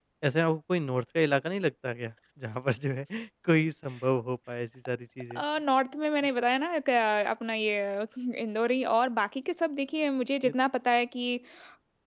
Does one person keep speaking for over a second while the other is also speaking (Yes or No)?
No